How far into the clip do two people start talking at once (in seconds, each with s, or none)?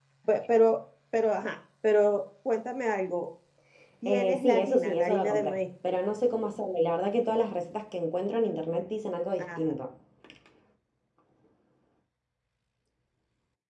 4.0 s